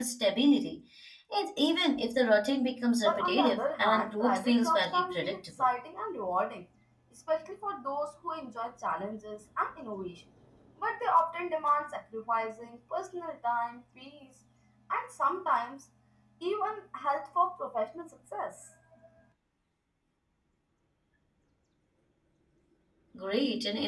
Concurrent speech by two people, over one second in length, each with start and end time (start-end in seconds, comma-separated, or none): 3.0-5.7